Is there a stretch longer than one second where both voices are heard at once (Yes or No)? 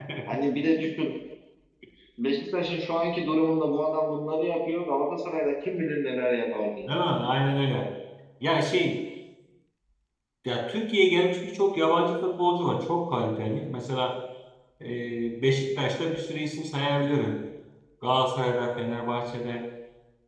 No